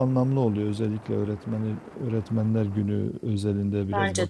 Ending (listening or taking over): listening